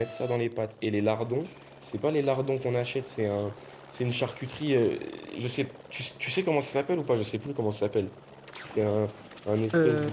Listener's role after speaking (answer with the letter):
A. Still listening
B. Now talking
A